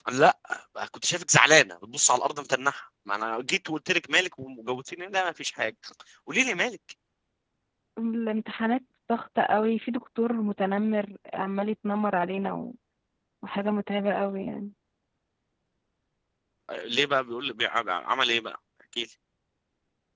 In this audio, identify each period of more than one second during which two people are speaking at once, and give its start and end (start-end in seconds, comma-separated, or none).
none